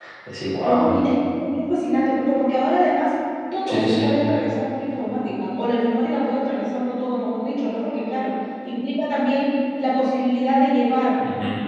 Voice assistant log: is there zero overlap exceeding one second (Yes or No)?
Yes